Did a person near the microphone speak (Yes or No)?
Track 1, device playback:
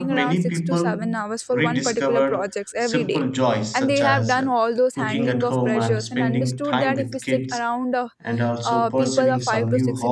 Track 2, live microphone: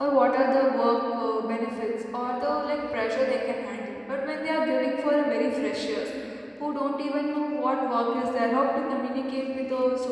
Yes